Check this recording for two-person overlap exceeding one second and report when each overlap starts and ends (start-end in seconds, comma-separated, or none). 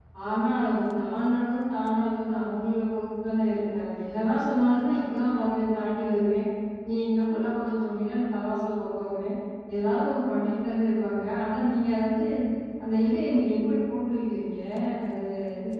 none